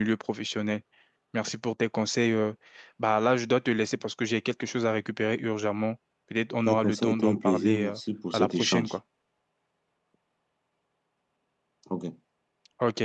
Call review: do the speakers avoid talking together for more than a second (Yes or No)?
No